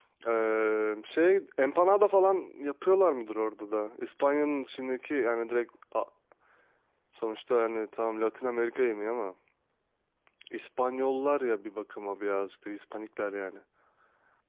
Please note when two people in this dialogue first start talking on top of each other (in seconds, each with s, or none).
none